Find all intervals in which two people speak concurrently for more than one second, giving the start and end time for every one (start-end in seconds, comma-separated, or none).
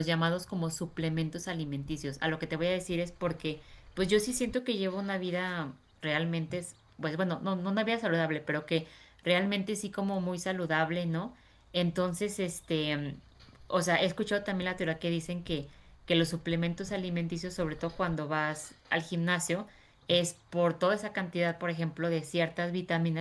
none